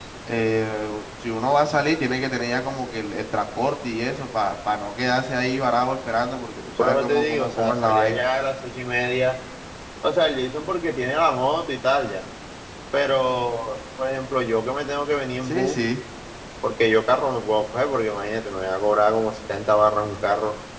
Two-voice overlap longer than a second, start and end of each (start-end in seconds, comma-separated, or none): 6.8-8.2